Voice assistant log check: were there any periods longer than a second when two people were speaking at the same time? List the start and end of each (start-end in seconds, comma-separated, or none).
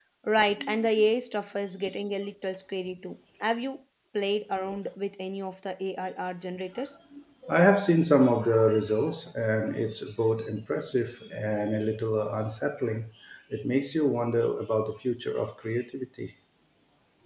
none